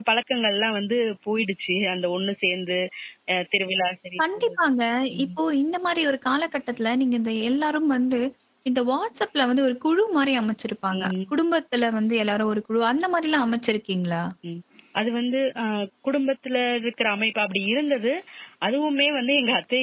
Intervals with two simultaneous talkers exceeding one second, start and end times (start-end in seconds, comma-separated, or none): none